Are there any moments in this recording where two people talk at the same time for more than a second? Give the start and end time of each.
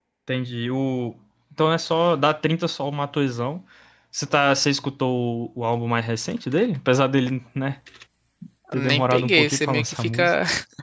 8.7-10.3

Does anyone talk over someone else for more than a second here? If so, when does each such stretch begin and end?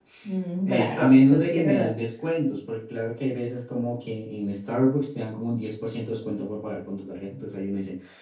0.7-1.9

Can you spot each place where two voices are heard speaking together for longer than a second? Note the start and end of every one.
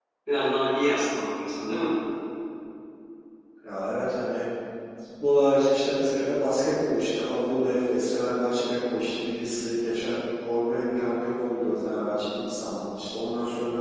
none

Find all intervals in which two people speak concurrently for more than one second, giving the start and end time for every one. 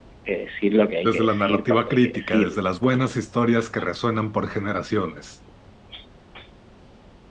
1.0-2.5

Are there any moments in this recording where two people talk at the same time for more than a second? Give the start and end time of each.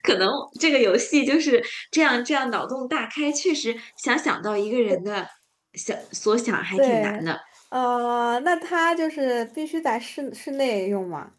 none

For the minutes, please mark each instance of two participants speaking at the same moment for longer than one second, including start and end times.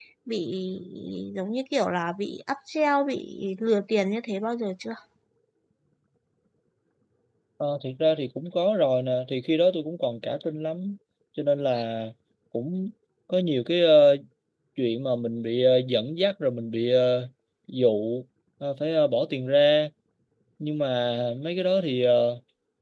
none

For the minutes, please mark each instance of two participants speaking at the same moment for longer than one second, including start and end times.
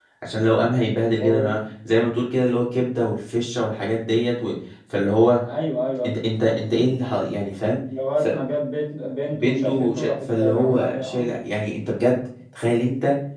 9.3-11.3

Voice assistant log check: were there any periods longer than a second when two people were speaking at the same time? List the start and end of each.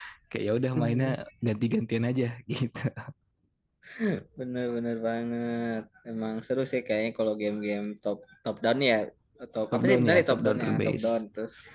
9.7-11.1

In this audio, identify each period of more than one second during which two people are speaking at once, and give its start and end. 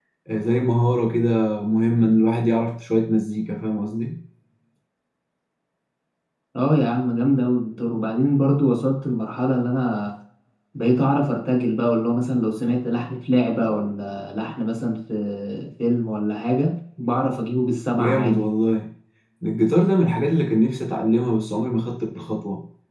none

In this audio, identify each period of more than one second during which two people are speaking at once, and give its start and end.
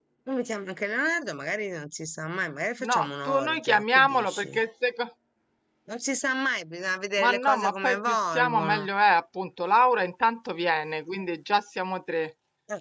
2.9-4.6, 7.2-8.9

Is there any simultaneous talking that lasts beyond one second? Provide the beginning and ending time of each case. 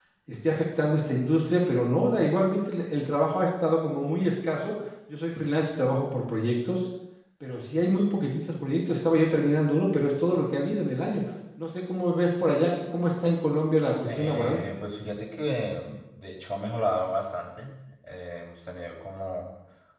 none

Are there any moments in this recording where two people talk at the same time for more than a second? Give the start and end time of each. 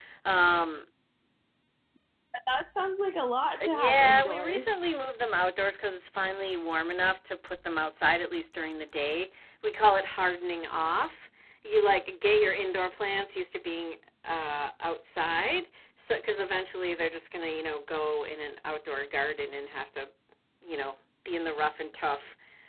3.6-4.9

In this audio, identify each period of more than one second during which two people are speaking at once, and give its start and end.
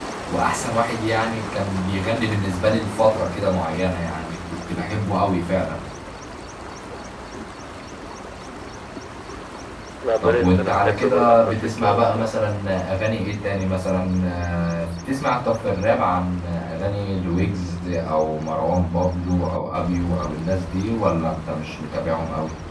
10.2-12.3

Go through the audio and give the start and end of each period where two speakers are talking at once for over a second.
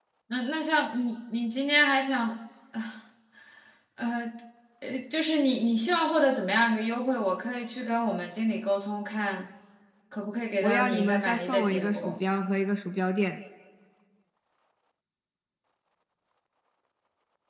10.6-12.2

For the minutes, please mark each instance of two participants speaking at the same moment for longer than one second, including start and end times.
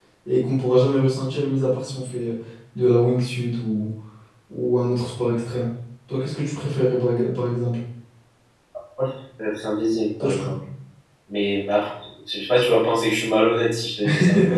none

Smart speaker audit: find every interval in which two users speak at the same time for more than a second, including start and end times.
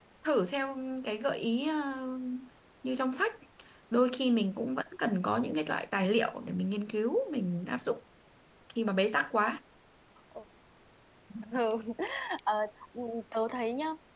none

